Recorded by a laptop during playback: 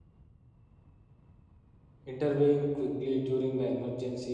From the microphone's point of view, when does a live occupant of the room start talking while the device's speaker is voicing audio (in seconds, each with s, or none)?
2.0 s